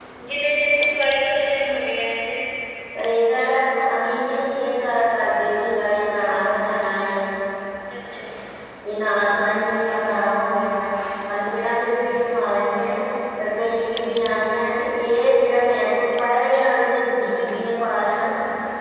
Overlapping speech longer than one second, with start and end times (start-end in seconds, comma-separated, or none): none